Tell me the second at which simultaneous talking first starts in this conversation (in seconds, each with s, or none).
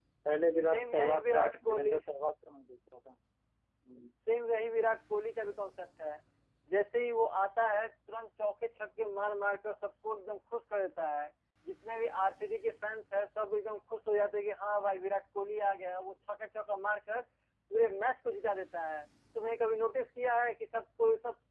0.7 s